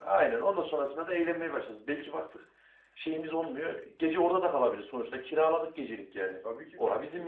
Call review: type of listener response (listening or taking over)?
taking over